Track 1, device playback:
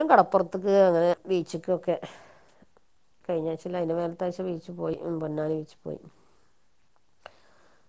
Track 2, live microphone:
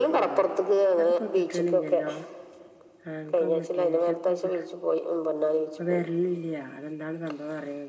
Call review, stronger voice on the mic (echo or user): echo